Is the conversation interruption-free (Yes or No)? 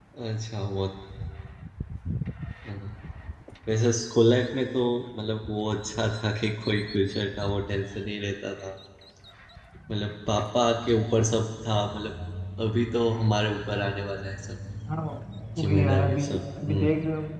No